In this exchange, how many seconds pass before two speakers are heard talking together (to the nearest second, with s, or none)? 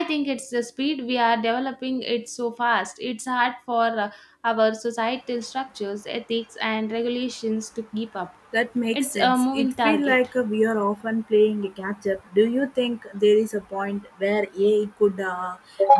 9 s